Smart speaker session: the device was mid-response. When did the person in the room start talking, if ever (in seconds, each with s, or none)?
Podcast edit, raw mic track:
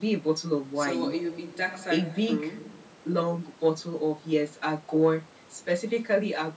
0.7 s